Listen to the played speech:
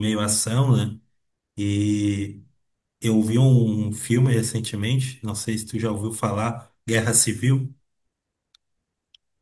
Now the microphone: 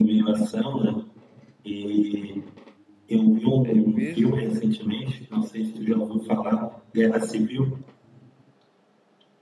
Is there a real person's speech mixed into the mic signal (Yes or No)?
Yes